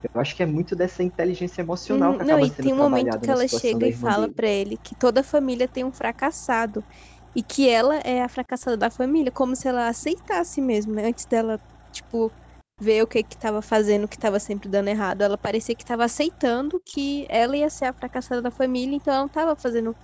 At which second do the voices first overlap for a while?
1.9 s

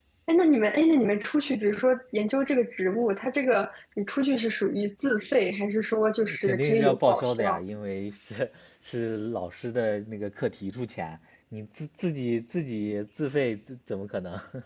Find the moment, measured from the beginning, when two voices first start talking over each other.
6.2 s

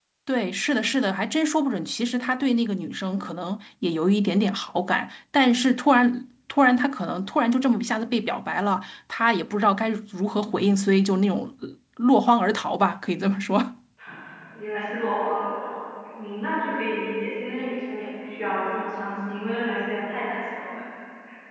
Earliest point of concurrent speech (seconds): none

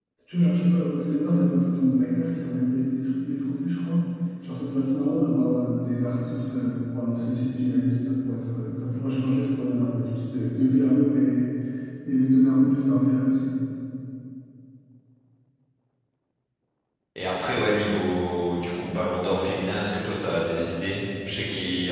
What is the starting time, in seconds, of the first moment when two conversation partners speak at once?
none

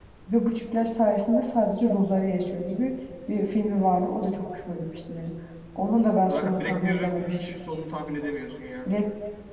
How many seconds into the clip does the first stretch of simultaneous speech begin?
6.3 s

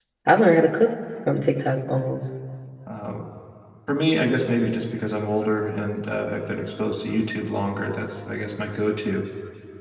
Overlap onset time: none

